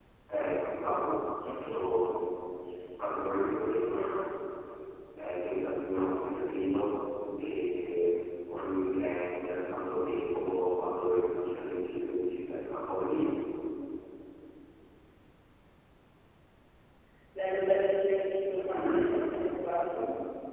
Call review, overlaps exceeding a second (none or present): none